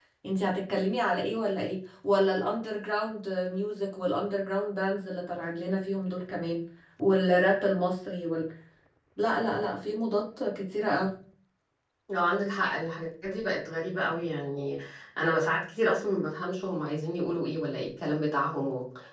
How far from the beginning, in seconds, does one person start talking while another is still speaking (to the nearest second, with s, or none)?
none